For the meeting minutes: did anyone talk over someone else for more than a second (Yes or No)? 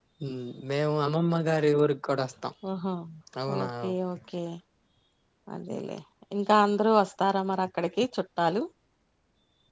No